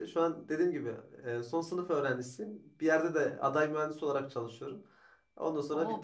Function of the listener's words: taking over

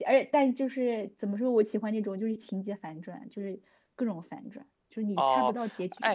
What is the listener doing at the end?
taking over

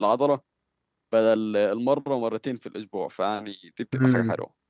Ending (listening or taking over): taking over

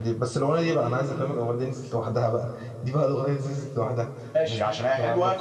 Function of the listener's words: taking over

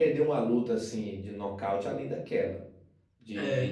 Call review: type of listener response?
listening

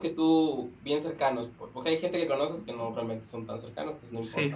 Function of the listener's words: taking over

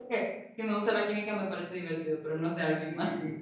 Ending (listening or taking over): taking over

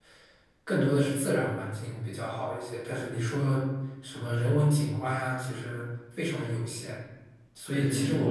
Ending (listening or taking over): taking over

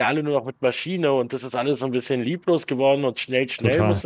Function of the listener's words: taking over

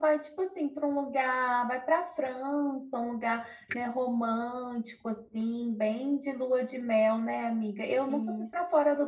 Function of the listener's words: listening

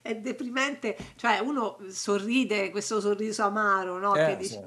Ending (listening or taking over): listening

